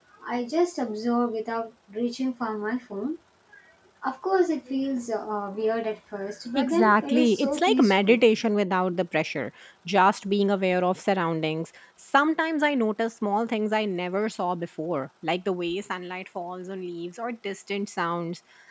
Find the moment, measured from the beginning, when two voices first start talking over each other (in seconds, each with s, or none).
6.6 s